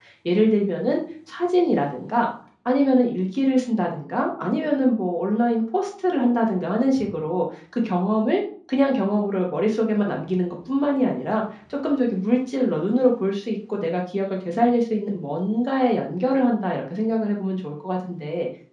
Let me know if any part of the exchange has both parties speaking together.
No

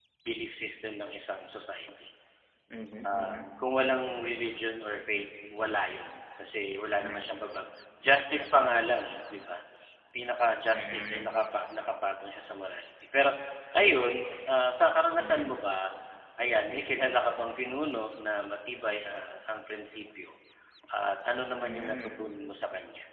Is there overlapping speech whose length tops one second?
No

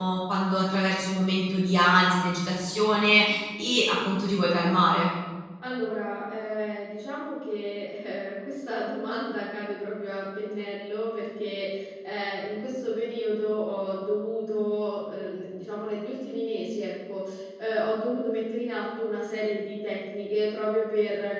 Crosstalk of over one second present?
No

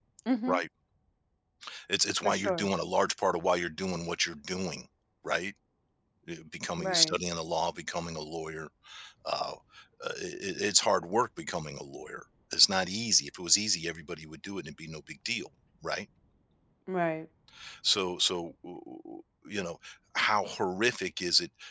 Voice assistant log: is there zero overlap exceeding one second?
Yes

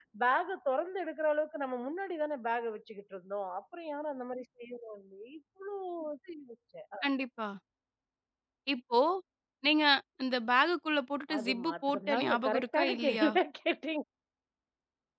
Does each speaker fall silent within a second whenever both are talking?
No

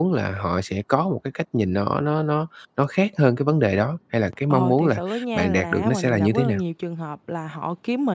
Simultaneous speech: Yes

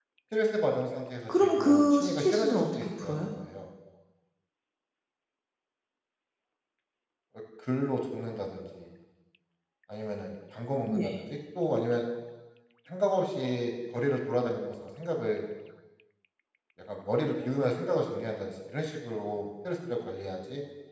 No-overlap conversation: No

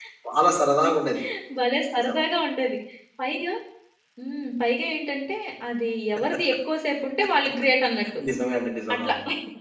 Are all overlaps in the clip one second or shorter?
Yes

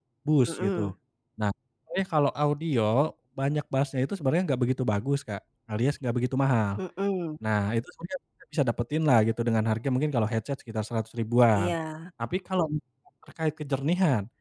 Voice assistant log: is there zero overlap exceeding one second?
Yes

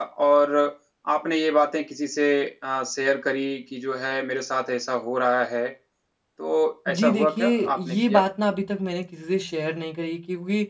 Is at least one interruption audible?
Yes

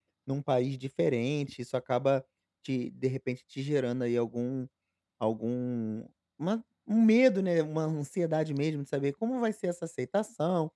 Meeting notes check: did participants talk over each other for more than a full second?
No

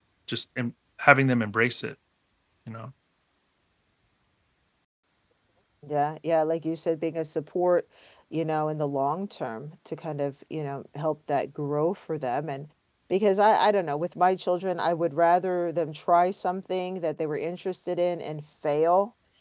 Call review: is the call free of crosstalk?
Yes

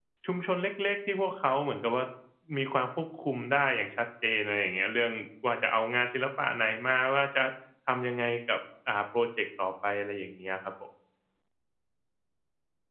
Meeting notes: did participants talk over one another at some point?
No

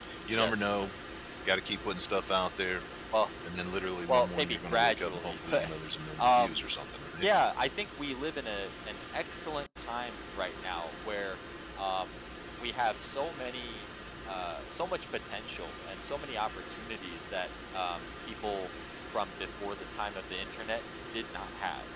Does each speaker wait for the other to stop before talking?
No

